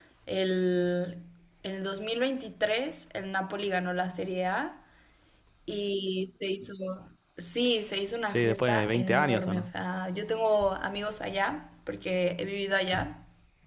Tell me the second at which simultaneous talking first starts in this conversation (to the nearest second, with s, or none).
8 s